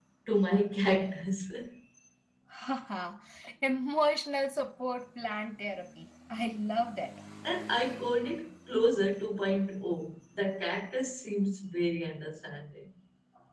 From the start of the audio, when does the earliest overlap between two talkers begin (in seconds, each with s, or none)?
none